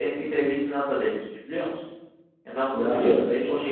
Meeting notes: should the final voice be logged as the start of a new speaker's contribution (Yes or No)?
No